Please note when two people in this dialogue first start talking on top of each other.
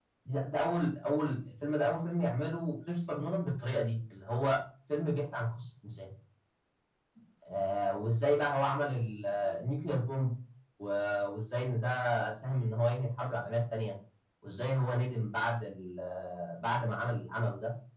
none

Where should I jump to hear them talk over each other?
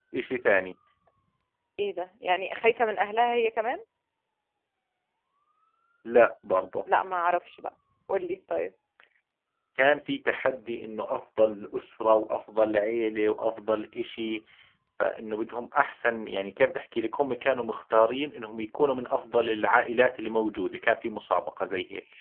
none

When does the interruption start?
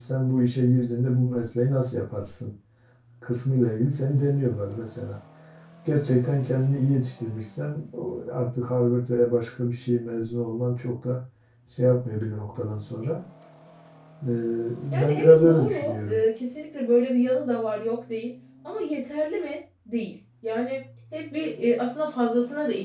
15.0 s

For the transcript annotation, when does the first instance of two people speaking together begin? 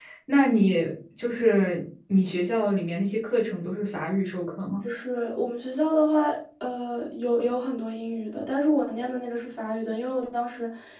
none

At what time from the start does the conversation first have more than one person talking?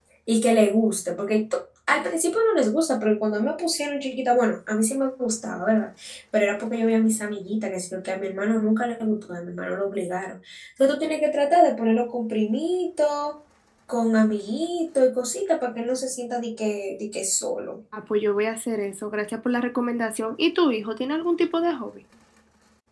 none

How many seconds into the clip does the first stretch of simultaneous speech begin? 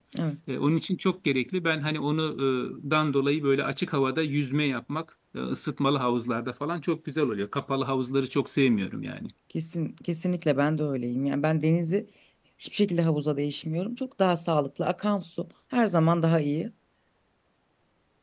none

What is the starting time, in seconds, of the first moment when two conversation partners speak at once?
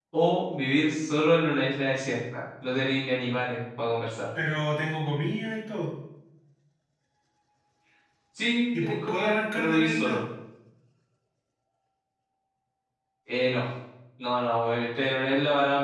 8.8 s

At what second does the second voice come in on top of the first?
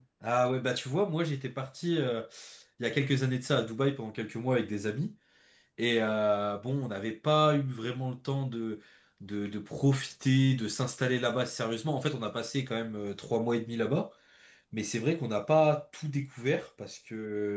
none

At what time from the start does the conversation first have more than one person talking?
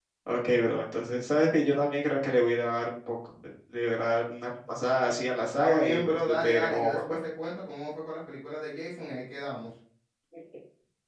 5.5 s

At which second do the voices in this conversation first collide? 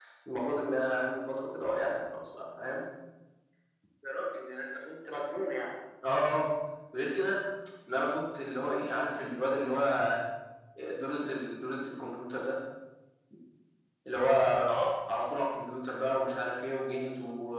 none

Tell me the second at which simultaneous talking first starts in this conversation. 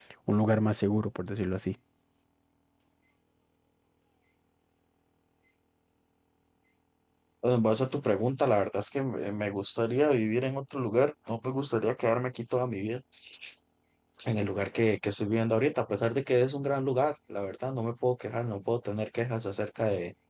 none

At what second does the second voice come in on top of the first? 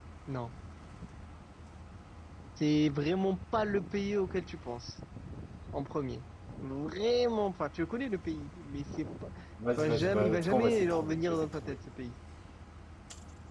9.8 s

